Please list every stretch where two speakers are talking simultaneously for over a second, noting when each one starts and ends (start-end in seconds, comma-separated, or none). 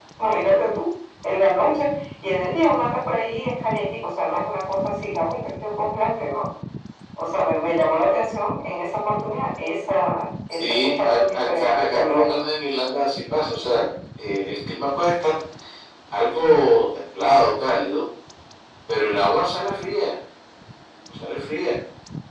10.5-12.4